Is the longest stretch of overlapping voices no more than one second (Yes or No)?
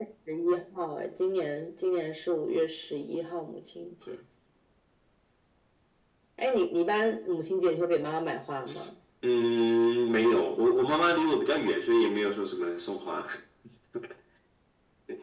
Yes